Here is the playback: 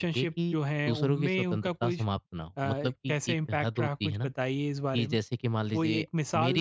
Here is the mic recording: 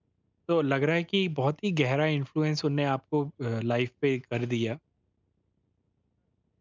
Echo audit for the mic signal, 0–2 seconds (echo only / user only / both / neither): user only